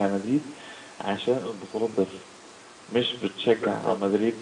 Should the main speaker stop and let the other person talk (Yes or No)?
No